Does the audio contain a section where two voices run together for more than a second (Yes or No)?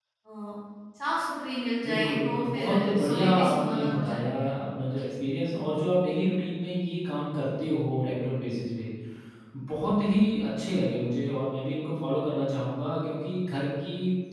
Yes